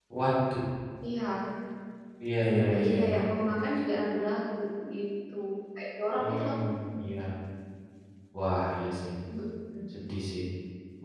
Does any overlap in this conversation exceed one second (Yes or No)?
No